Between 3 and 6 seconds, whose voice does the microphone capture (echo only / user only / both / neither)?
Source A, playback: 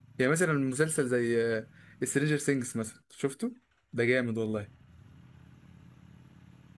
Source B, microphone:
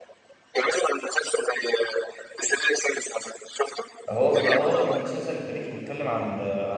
both